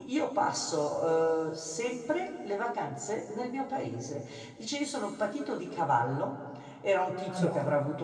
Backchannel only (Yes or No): Yes